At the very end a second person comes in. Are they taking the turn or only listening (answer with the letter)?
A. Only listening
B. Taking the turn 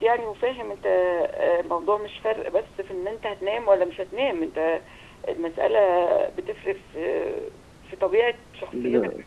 A